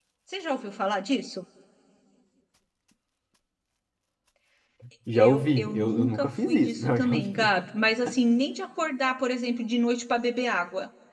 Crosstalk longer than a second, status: present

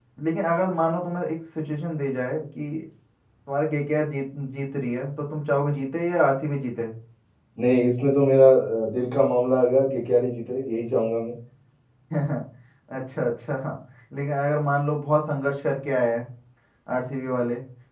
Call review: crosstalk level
none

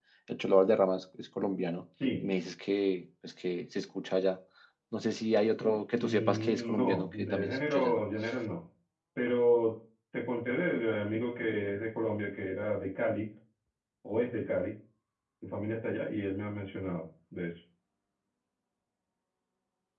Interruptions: present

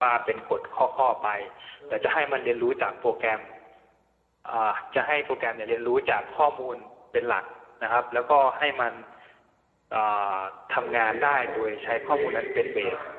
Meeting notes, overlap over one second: present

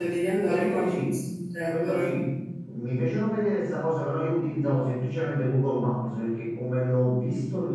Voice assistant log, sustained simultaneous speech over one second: none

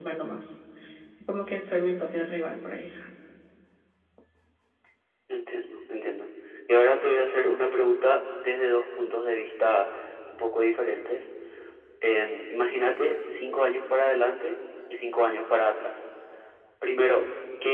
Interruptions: none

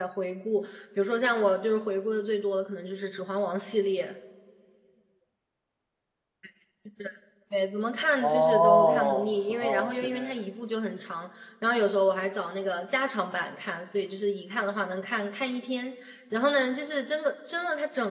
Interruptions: present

